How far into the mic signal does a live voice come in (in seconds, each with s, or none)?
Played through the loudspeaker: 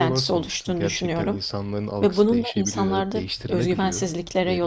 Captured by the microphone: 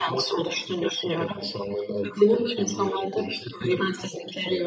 none